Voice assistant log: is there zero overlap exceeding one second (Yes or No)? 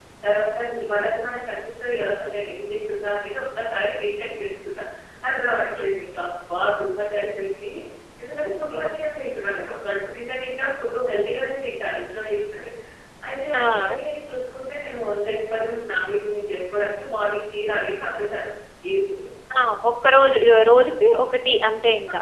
Yes